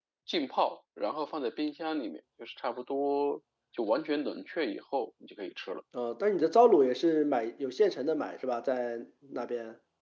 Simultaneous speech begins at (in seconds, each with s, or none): none